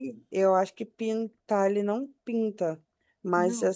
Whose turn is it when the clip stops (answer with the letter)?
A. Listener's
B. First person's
B